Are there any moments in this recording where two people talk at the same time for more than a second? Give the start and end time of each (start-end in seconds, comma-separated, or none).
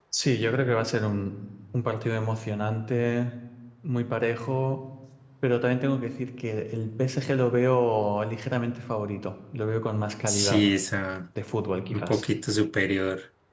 none